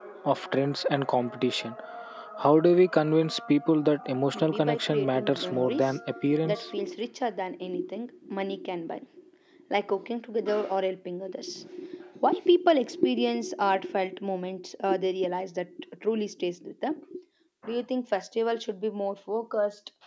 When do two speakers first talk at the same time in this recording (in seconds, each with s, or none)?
4.3 s